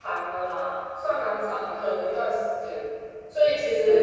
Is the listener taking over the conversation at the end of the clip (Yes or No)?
Yes